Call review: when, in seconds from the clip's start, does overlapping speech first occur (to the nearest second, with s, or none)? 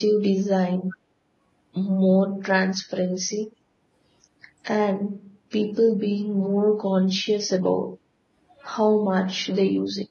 none